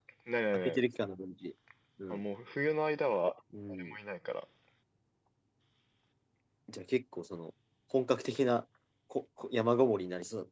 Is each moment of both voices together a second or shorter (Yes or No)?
Yes